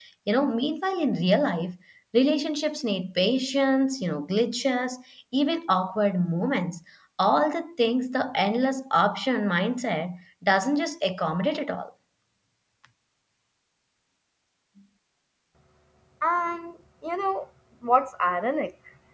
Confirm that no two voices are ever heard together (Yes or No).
Yes